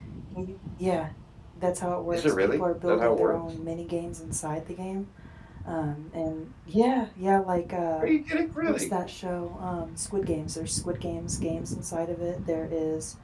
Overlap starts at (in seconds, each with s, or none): 2.1 s